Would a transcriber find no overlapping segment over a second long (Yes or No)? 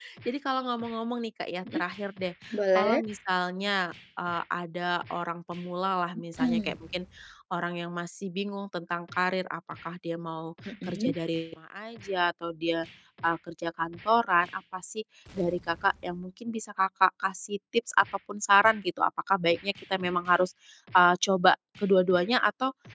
Yes